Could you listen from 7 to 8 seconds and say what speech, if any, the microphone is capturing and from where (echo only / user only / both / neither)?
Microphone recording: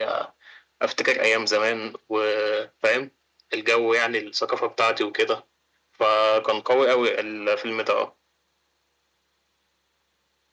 echo only